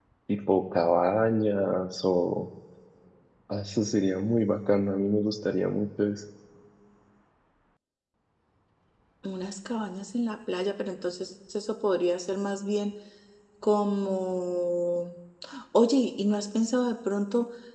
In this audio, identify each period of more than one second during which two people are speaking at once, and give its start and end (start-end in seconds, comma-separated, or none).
none